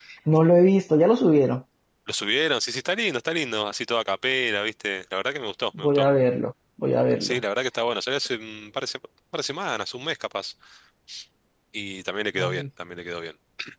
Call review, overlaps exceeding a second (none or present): none